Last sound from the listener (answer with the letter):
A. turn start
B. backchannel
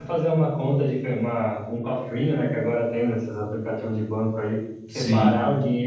B